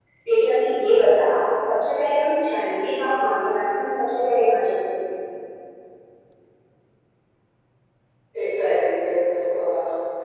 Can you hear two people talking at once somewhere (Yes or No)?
No